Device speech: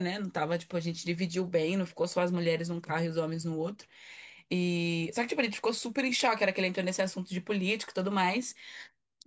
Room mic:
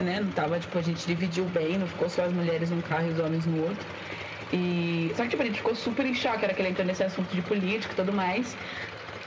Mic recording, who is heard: echo only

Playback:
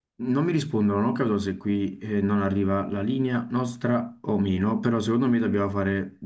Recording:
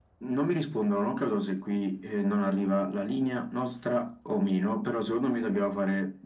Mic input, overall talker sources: echo only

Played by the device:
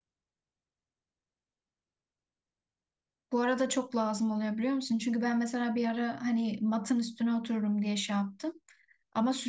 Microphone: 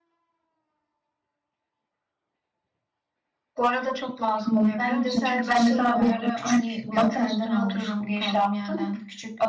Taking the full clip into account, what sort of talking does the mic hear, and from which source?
both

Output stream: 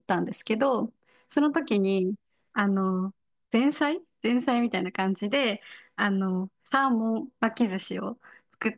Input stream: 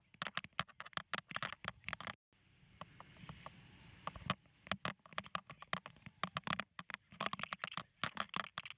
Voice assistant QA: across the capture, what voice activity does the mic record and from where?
neither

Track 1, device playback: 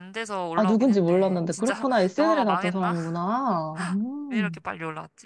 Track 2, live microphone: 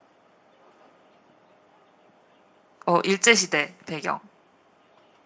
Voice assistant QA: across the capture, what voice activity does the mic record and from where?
user only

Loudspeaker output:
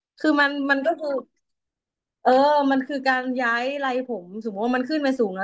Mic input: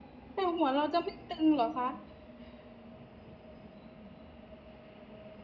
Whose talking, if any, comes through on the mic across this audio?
user only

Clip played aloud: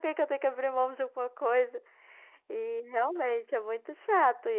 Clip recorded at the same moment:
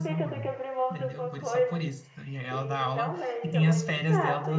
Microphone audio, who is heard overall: both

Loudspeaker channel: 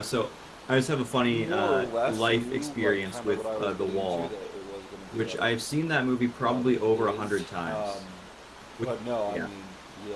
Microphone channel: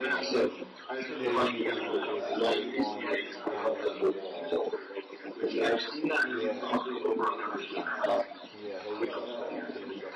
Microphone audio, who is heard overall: both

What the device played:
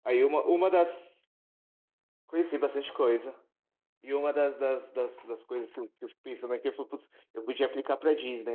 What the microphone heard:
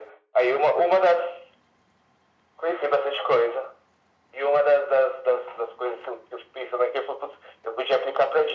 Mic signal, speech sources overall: echo only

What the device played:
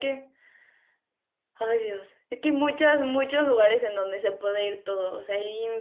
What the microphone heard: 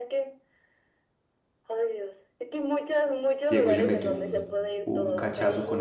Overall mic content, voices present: both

